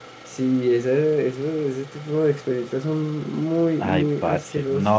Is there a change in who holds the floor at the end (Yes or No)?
Yes